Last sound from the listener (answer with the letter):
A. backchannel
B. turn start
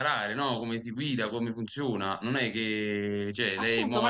B